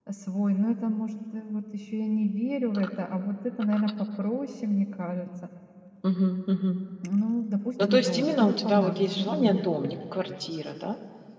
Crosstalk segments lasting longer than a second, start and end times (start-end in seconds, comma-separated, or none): 7.9-9.6